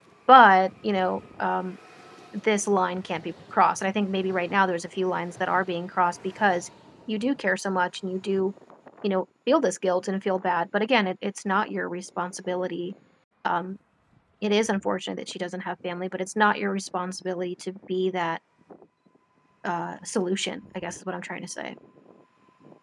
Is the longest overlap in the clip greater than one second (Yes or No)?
No